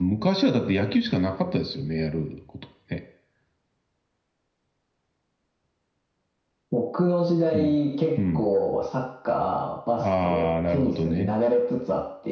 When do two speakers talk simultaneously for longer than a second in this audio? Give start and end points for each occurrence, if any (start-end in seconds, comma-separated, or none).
10.0-11.3